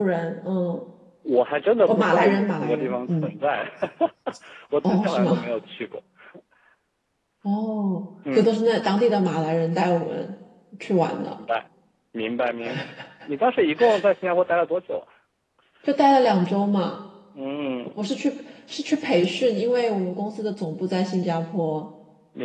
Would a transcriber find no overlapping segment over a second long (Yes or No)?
No